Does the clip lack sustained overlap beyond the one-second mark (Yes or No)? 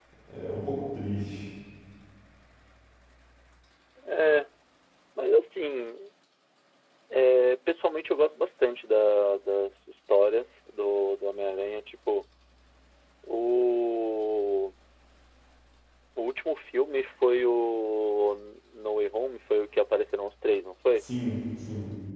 Yes